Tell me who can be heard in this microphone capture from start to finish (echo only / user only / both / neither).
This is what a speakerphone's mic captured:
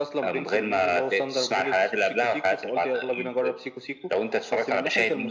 echo only